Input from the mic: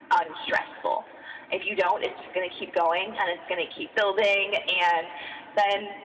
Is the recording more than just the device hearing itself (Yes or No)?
No